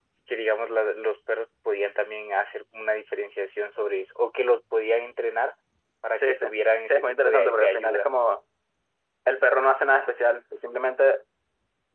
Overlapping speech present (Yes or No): Yes